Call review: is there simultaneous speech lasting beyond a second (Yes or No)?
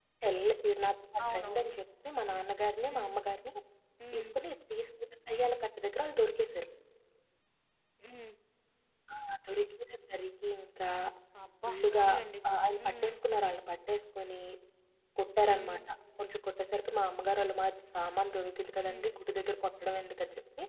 No